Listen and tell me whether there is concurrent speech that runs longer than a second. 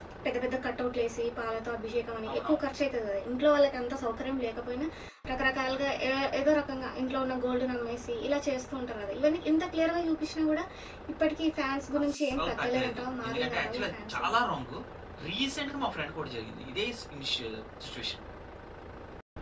Yes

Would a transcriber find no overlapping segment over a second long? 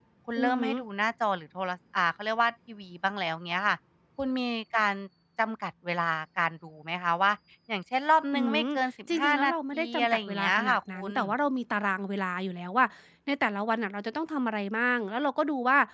No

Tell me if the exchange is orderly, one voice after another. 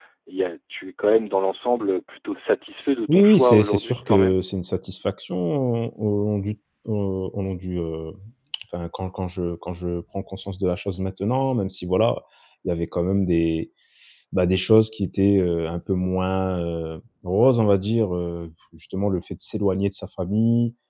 No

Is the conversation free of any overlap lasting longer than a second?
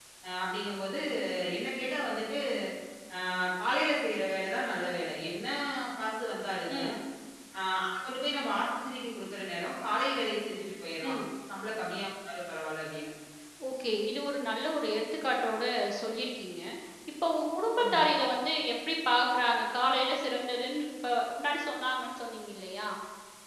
Yes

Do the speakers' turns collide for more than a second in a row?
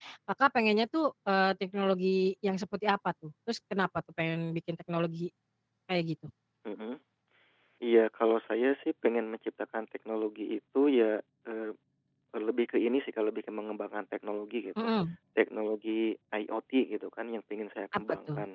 No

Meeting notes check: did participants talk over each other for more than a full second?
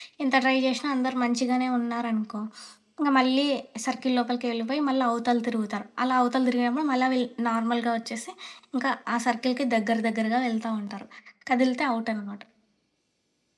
No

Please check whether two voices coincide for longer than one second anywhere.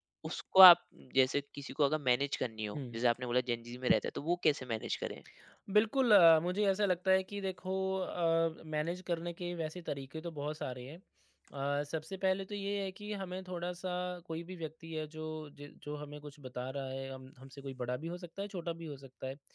No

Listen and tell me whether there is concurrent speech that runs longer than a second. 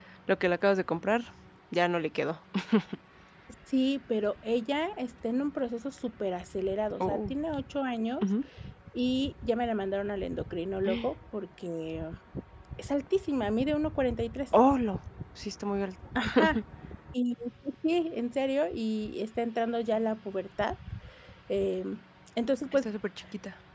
No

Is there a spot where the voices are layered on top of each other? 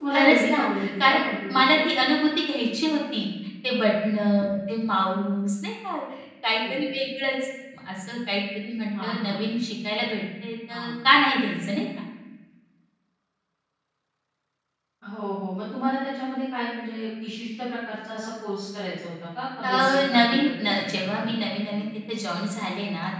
Yes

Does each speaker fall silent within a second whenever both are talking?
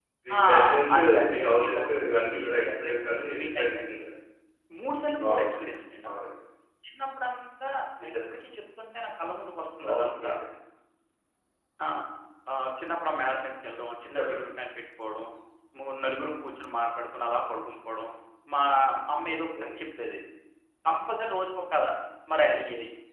No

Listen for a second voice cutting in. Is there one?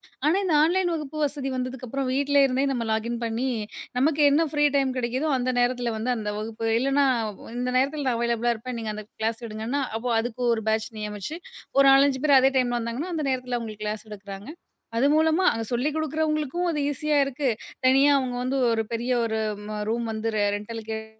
No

